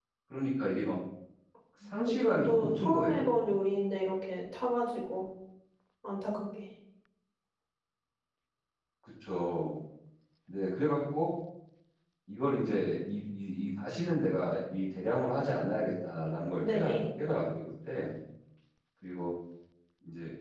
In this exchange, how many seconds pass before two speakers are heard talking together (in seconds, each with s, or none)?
2.0 s